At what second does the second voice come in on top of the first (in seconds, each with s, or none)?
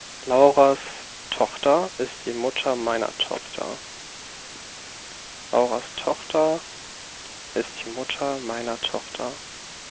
none